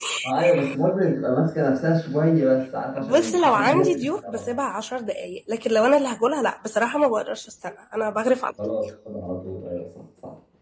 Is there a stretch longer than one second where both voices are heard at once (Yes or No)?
Yes